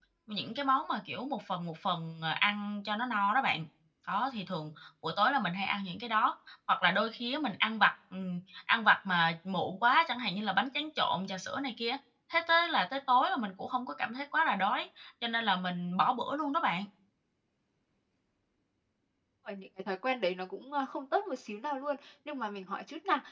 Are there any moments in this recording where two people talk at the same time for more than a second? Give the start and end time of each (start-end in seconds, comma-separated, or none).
none